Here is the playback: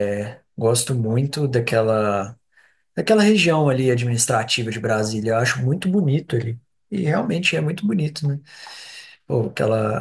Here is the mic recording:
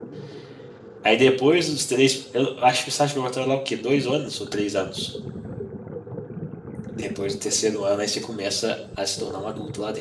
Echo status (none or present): none